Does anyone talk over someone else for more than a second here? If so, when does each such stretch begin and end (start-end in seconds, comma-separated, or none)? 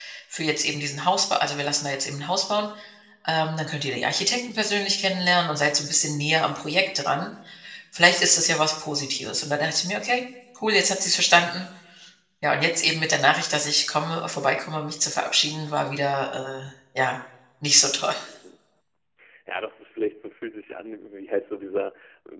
none